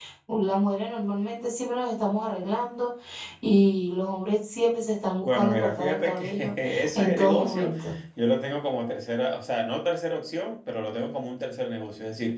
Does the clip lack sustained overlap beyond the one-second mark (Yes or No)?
No